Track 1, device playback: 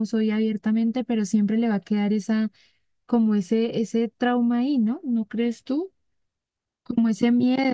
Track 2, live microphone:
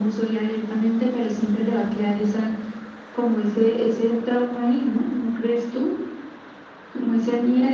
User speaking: No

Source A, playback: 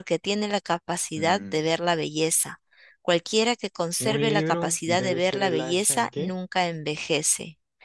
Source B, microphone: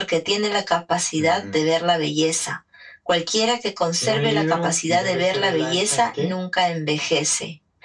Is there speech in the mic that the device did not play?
No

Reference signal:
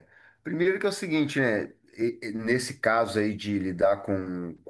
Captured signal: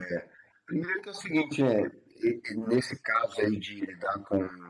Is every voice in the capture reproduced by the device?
Yes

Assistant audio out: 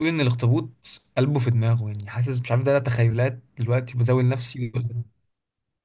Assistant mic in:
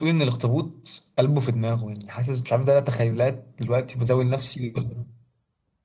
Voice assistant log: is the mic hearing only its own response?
Yes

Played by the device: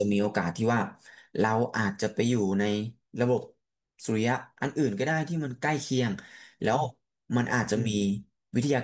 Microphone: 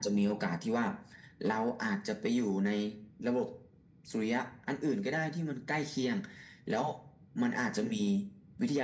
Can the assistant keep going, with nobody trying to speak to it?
Yes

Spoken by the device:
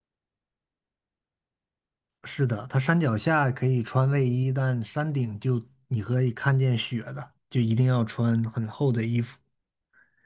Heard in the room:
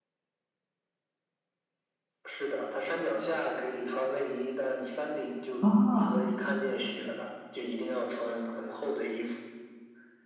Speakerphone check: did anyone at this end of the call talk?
Yes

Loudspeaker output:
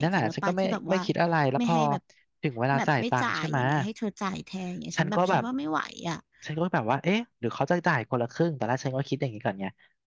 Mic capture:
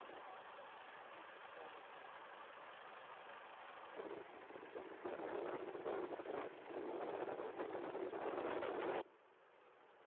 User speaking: No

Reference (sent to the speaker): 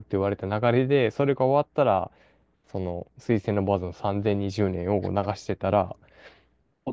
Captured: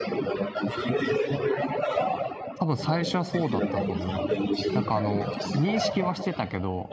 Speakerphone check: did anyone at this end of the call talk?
Yes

